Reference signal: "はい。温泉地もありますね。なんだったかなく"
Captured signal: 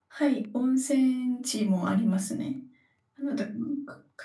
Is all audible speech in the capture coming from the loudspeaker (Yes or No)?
Yes